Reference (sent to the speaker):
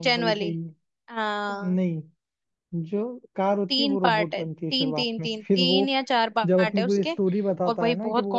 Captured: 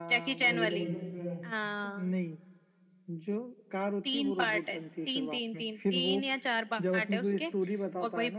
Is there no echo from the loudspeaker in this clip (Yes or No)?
No